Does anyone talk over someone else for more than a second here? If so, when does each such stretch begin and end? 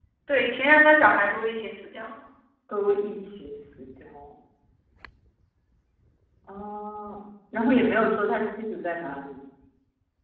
none

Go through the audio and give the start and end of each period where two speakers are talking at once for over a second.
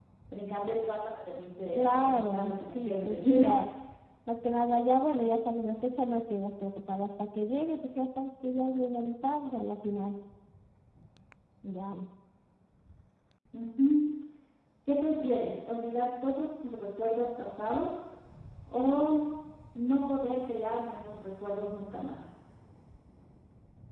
1.8-3.5

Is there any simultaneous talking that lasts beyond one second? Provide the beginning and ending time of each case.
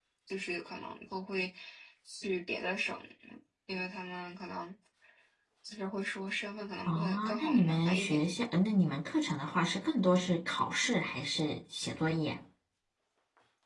6.9-8.2

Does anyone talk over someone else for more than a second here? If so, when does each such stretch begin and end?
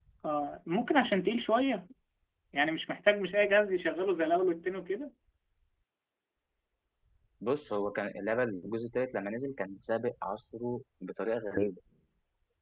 none

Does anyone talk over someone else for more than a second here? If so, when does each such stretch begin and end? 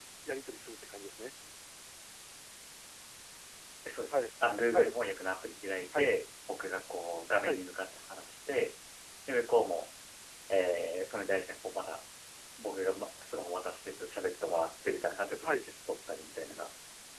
none

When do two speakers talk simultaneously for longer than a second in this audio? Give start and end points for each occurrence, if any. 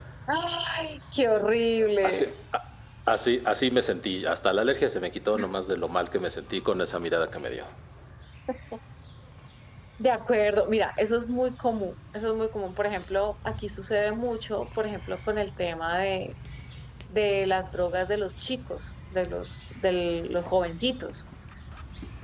none

